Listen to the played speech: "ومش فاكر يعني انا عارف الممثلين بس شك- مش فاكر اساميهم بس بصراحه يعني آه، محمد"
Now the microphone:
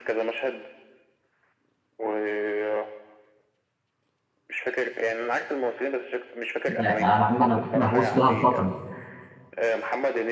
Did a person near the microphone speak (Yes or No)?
Yes